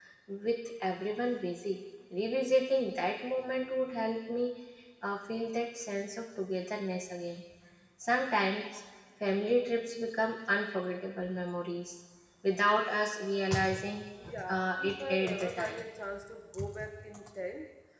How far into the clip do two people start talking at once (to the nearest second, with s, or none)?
14 s